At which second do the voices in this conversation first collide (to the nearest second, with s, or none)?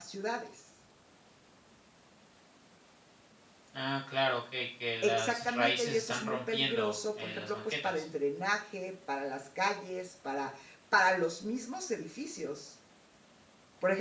5 s